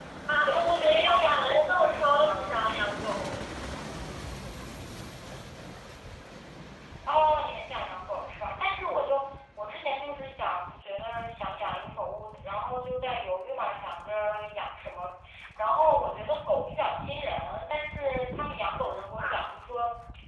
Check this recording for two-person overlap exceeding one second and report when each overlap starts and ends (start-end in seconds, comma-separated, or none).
0.5-2.6